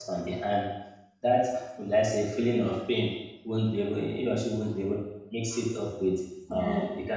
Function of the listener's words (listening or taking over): listening